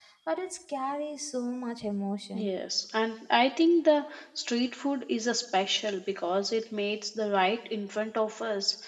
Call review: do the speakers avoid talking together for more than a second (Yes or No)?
Yes